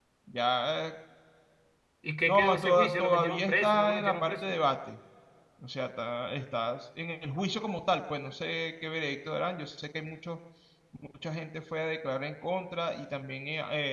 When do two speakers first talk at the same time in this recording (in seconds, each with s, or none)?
2.3 s